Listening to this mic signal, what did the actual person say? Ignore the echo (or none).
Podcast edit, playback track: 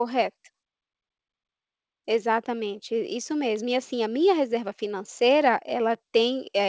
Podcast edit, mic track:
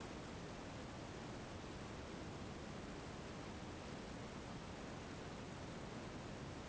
none